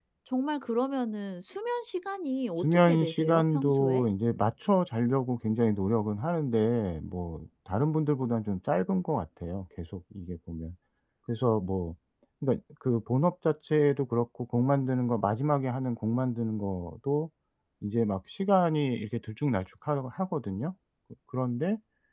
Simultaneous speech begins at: 2.6 s

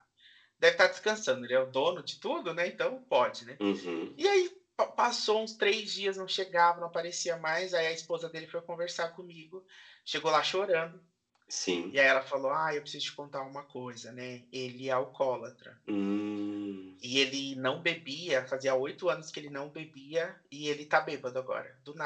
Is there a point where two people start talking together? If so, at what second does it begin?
none

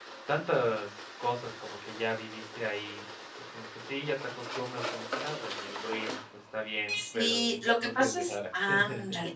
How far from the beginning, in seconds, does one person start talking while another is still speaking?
7.0 s

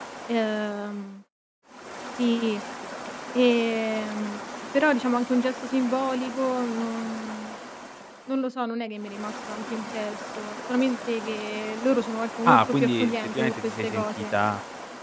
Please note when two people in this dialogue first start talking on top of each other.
12.4 s

